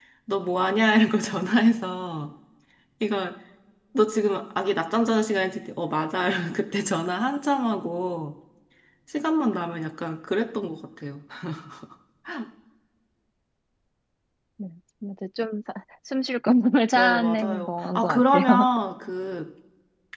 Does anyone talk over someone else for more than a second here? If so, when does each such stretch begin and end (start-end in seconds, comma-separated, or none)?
16.9-18.7